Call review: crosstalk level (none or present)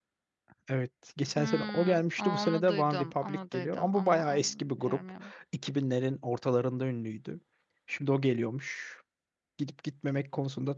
present